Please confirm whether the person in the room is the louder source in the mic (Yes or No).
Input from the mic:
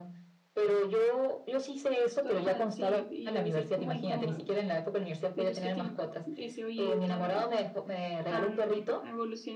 No